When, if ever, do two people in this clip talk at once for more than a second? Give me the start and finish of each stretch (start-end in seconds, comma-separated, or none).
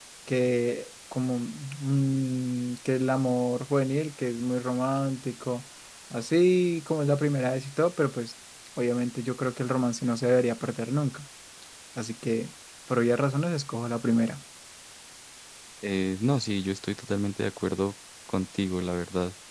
none